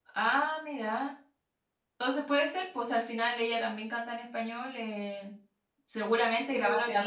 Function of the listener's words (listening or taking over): taking over